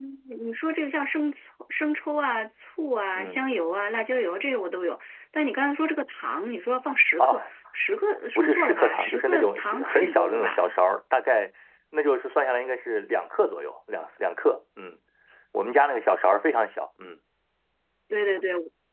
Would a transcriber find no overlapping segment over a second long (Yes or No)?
No